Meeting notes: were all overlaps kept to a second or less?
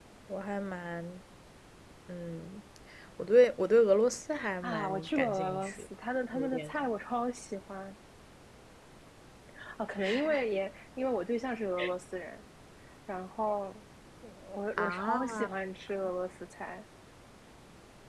No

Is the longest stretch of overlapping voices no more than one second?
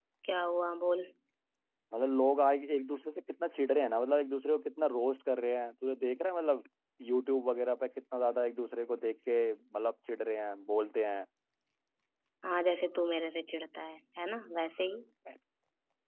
Yes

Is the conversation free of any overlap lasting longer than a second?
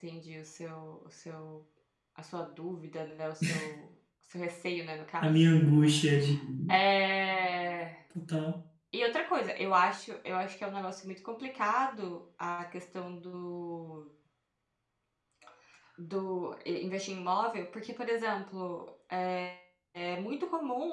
Yes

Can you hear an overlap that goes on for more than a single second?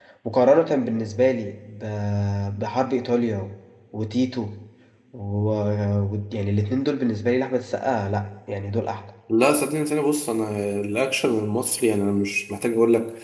No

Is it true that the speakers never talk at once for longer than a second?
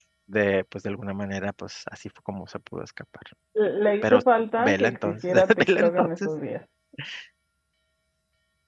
No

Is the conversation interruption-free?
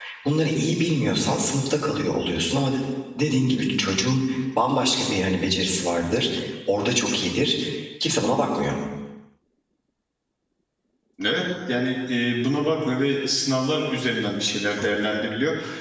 Yes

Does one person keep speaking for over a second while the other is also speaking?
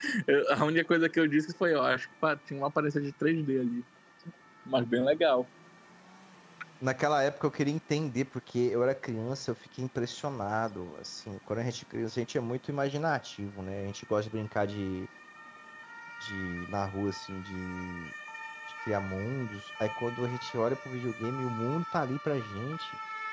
No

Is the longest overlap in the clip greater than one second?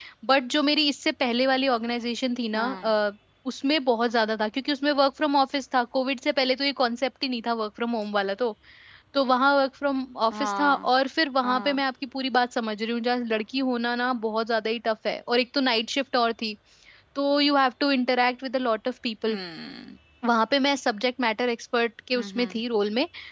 No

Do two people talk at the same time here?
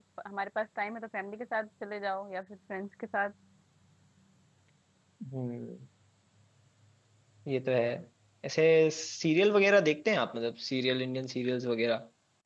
No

